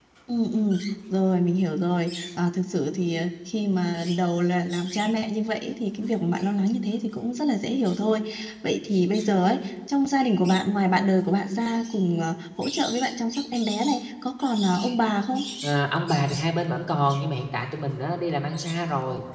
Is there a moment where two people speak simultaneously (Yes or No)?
No